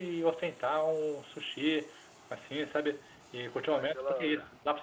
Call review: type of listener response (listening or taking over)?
listening